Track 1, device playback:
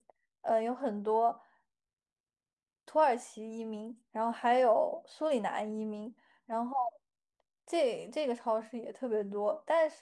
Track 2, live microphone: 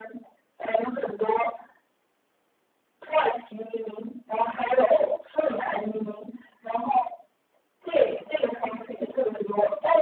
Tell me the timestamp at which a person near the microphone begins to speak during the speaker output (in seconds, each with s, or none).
none